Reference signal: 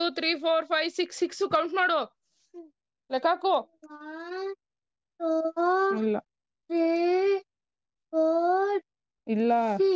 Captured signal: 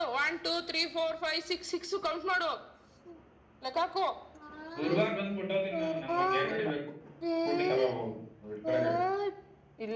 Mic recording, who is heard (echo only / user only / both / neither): both